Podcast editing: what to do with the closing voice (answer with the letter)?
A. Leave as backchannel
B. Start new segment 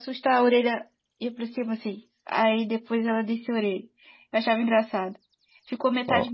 A